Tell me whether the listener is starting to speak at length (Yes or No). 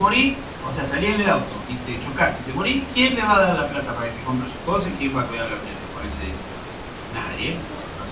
No